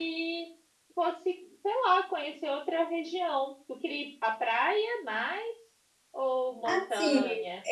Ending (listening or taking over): taking over